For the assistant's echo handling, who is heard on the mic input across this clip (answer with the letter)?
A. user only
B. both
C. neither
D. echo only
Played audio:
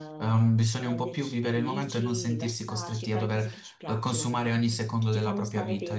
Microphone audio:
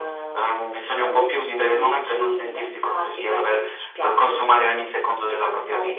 D